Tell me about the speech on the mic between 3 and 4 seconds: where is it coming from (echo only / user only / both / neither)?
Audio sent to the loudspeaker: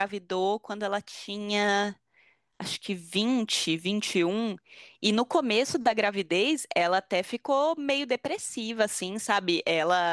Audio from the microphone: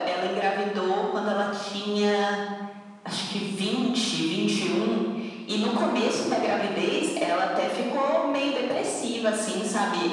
echo only